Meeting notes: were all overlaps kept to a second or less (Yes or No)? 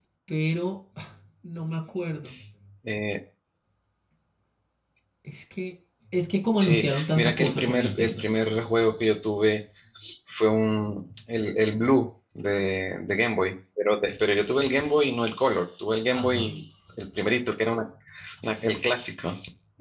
No